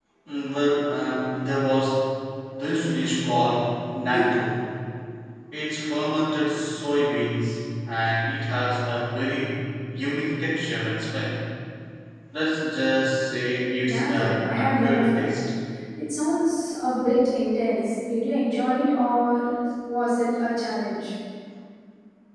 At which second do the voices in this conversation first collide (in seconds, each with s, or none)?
13.8 s